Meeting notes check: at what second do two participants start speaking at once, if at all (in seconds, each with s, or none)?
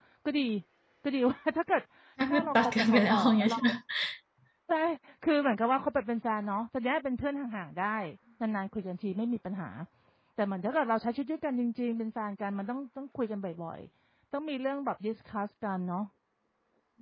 2.3 s